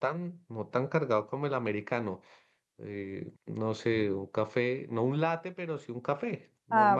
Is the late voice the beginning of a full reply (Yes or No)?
Yes